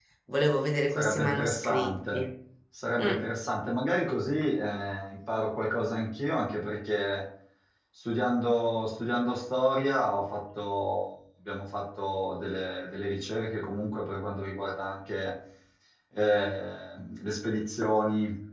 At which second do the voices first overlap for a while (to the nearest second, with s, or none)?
1 s